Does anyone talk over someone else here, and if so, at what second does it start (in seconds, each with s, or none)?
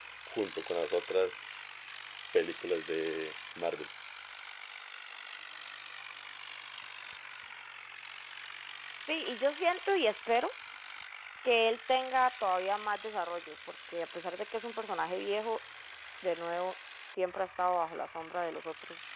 none